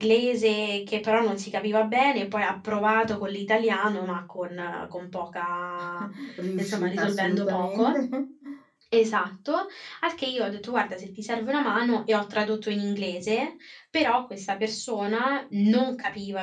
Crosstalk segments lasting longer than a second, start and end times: 6.6-8.0

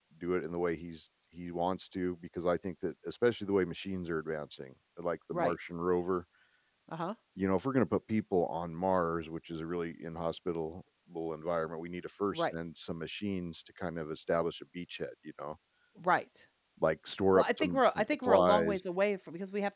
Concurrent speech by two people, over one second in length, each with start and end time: 17.3-18.8

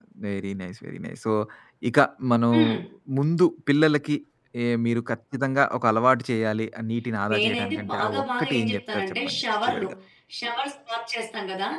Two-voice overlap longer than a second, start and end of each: 7.3-9.9

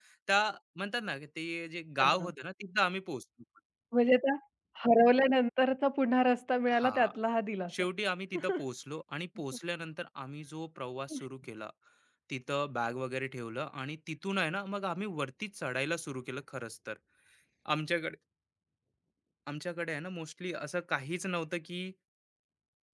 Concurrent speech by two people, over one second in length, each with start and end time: none

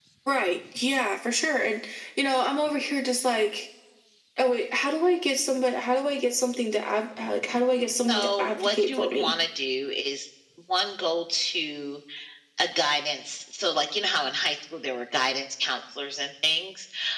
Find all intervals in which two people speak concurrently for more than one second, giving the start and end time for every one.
8.1-9.3

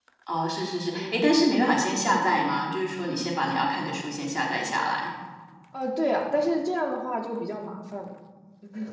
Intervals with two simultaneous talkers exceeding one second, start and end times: none

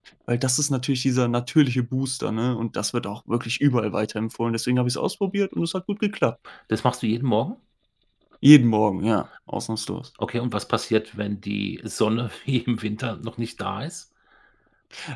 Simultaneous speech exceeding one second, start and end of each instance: none

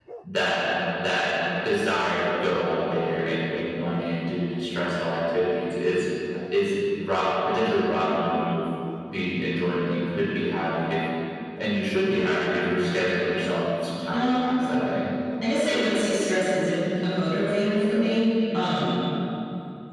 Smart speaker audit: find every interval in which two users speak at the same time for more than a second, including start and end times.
none

